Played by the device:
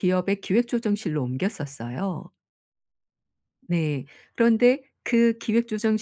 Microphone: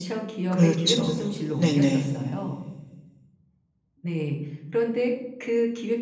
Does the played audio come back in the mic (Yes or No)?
Yes